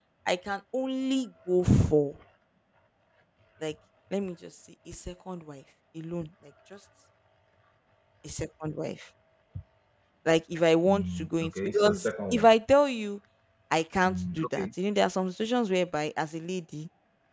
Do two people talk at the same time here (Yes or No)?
Yes